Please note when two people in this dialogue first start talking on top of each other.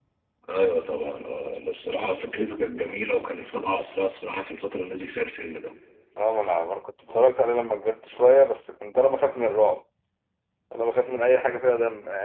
none

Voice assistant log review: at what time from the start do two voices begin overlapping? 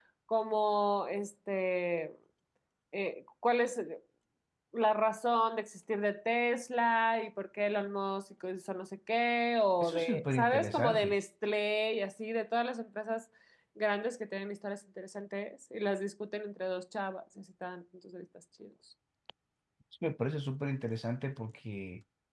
9.8 s

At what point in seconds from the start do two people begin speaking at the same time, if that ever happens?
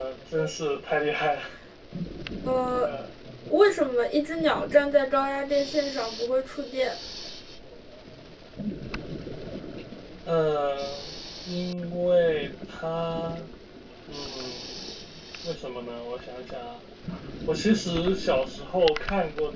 none

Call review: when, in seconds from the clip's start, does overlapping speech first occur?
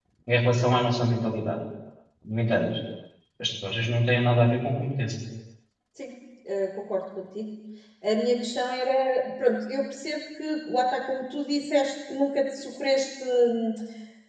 none

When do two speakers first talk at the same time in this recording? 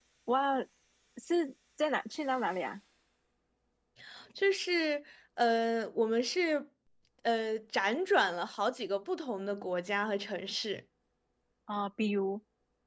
none

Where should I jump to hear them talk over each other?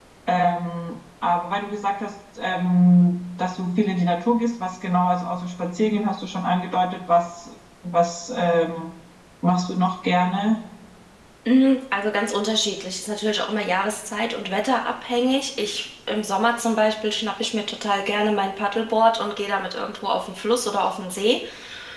none

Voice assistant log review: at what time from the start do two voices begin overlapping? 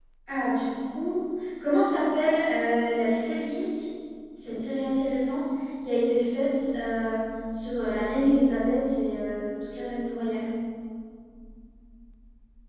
none

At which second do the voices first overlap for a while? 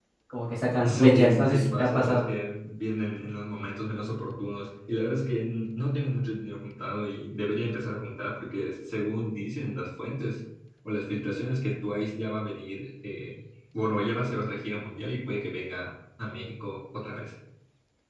0.8 s

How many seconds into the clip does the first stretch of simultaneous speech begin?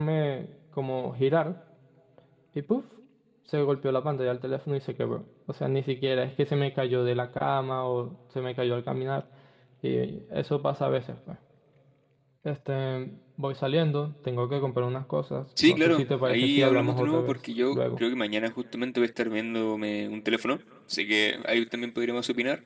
15.6 s

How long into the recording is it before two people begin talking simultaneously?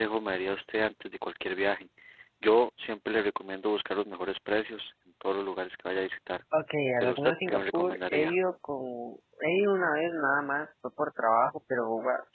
7.0 s

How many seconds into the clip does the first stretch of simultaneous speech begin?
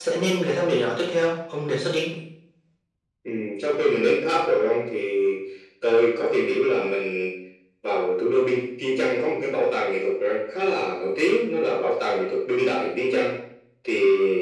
none

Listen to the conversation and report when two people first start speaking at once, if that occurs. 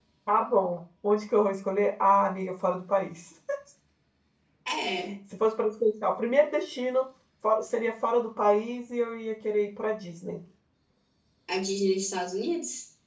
none

